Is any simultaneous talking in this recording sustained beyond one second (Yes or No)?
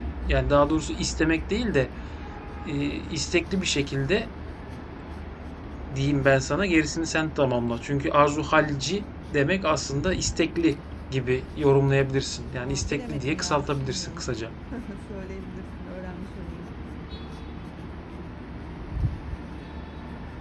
Yes